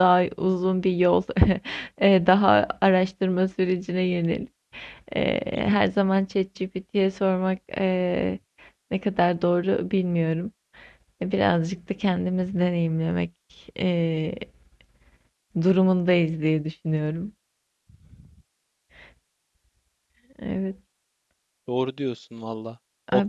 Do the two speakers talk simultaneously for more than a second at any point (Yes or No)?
No